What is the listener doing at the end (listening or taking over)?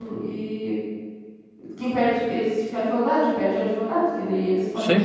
listening